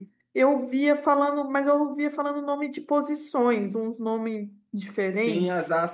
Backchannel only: No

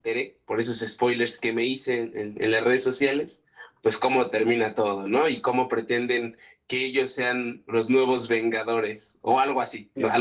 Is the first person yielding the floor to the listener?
Yes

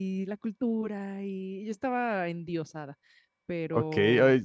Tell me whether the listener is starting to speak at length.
Yes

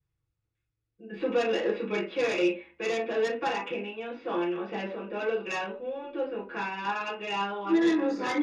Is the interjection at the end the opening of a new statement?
Yes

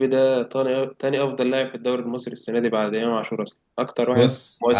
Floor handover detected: Yes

